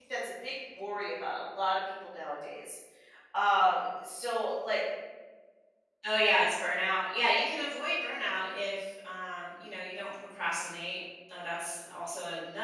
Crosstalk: none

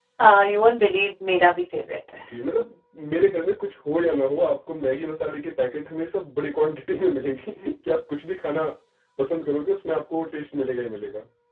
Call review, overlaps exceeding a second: none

